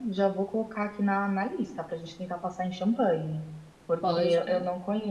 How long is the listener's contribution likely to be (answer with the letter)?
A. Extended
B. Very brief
B